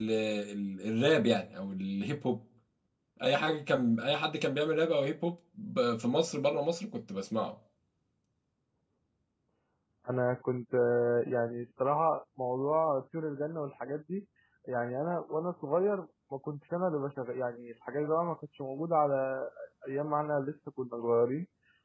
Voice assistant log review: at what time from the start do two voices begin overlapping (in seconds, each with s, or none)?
none